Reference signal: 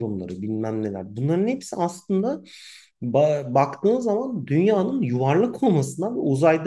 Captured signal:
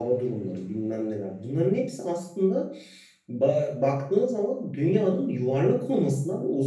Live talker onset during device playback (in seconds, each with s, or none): none